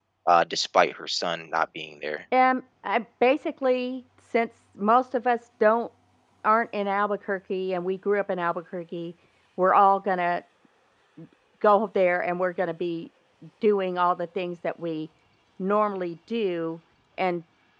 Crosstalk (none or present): none